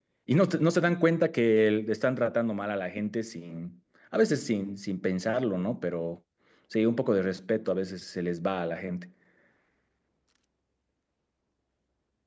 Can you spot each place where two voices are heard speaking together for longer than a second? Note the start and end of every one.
none

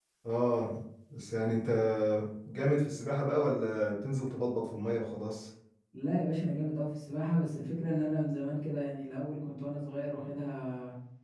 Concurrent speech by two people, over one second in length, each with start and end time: none

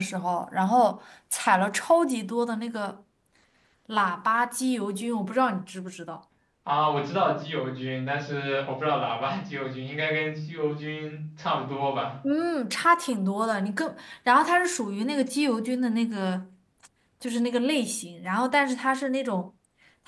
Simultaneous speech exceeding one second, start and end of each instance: none

